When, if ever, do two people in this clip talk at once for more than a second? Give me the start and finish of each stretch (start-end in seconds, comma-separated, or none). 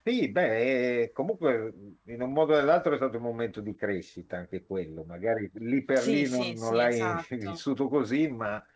5.9-7.6